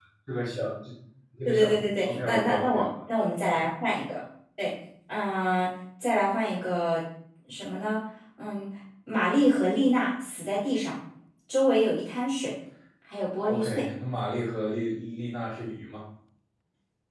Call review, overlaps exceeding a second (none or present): present